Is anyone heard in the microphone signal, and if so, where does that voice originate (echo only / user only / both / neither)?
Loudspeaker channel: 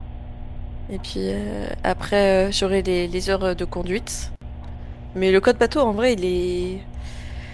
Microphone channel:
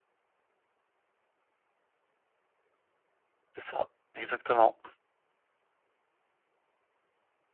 user only